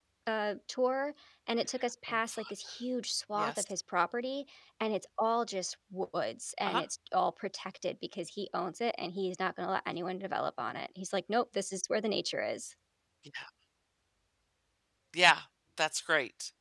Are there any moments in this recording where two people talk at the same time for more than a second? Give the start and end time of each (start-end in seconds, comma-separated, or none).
none